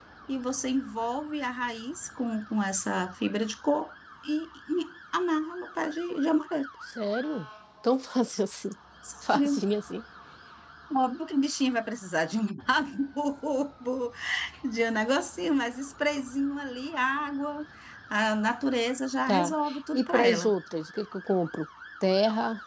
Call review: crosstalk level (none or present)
present